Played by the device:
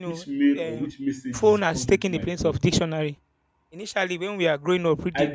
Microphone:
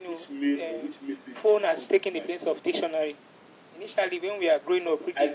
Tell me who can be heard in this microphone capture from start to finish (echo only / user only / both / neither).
echo only